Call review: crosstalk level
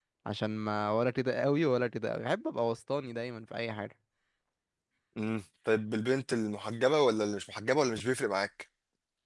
none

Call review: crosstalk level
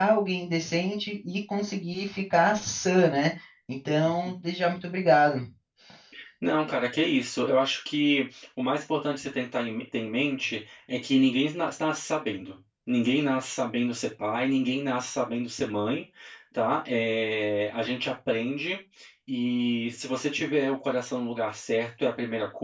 none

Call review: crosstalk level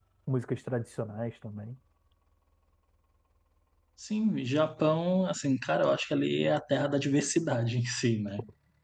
none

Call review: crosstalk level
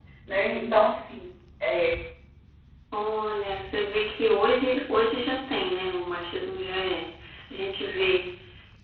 none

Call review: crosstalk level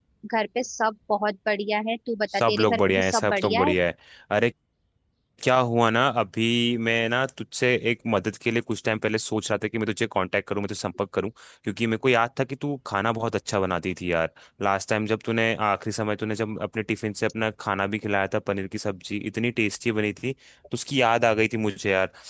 present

